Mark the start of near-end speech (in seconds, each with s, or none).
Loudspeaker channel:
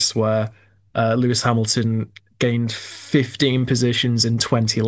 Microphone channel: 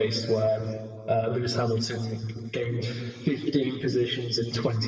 none